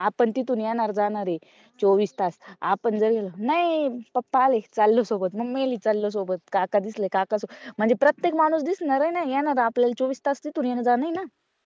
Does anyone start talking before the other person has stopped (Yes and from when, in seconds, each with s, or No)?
No